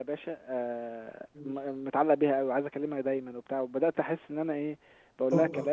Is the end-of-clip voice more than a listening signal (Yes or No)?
No